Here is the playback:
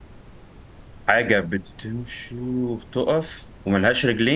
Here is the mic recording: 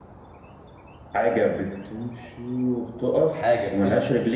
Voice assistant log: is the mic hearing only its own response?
No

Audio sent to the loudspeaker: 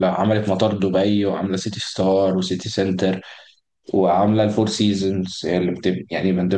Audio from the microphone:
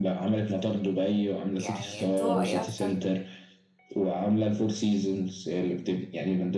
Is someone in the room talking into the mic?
Yes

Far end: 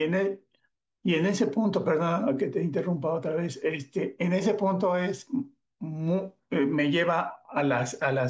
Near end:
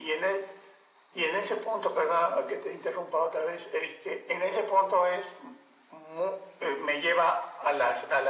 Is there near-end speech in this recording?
No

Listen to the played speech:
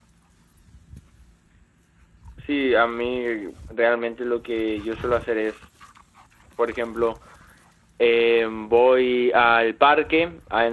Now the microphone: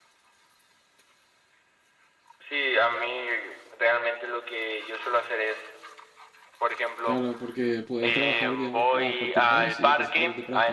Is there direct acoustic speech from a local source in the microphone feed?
Yes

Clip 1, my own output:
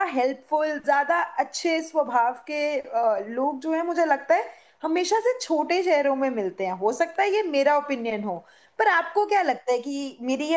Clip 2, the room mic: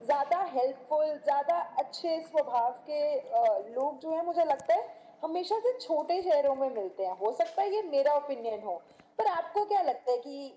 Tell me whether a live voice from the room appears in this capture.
No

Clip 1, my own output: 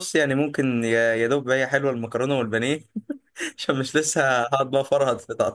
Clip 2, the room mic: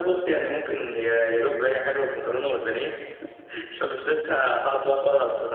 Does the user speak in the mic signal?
No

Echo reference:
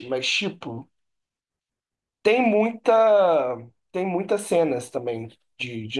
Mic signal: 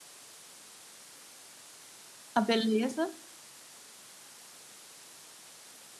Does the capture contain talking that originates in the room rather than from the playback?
Yes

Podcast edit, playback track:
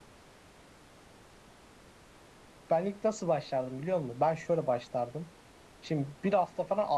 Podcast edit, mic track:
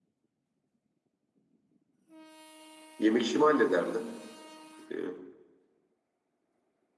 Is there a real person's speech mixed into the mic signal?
Yes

